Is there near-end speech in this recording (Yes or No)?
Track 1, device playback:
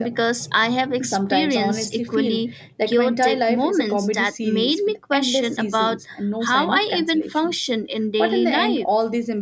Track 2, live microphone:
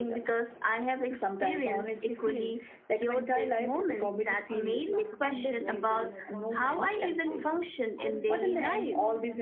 Yes